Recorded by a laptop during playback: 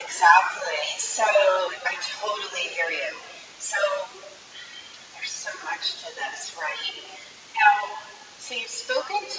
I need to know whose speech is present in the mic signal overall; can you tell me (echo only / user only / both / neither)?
echo only